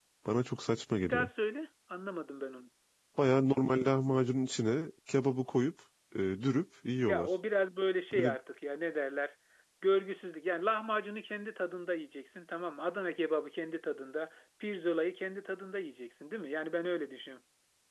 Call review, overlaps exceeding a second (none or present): none